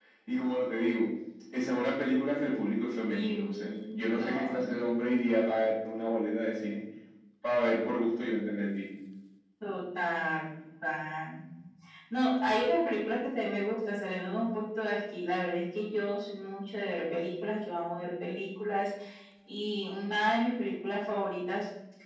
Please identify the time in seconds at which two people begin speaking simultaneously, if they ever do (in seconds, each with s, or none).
3.1 s